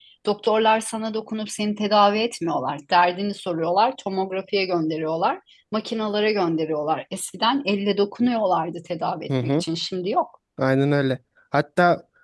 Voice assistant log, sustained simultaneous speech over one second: none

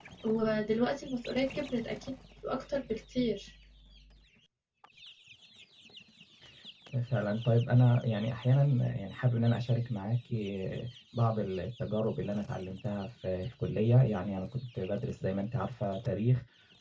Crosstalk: none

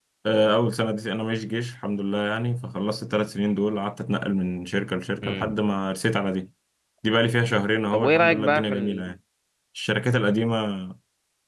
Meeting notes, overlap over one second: present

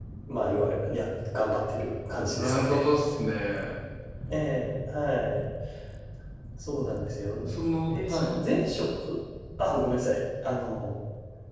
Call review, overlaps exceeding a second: none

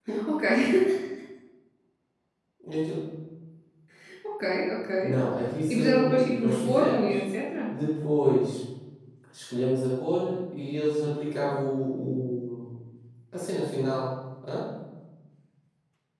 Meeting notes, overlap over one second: present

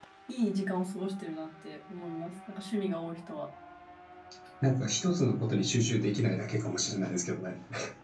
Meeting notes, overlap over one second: none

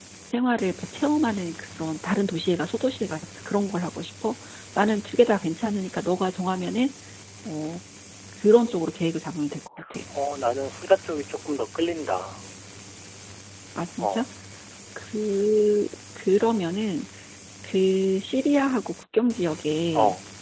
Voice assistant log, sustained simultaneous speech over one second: none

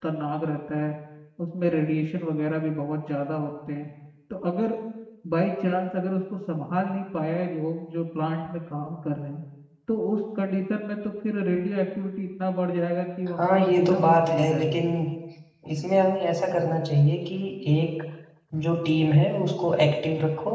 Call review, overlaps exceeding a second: present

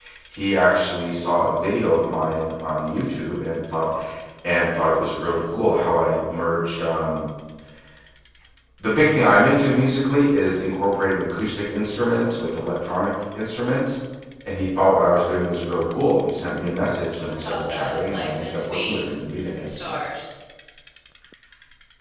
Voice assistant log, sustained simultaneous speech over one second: present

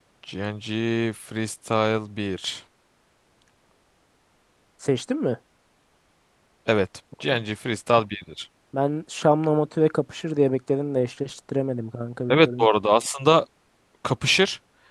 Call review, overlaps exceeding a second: none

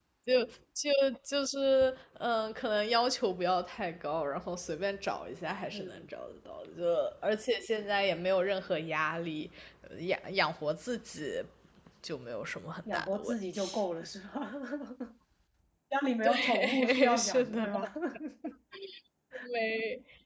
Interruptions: present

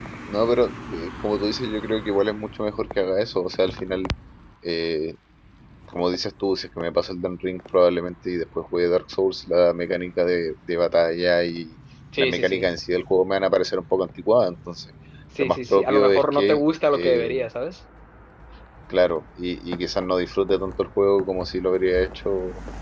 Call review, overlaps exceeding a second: present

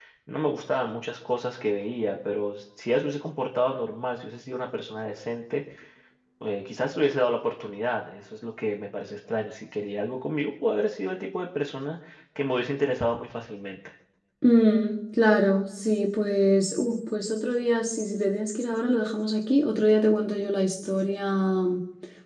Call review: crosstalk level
none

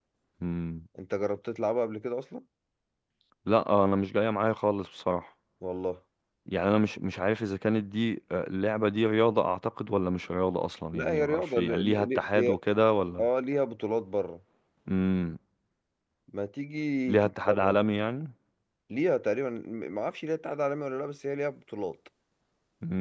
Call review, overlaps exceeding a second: present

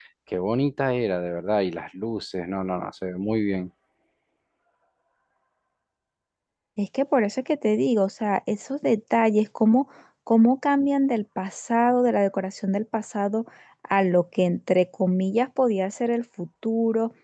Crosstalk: none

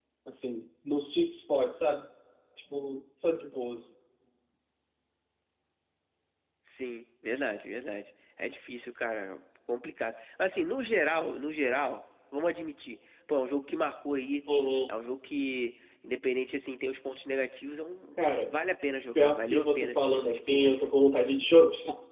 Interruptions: present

